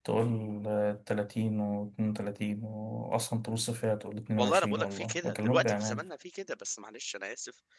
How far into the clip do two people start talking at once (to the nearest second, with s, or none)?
4 s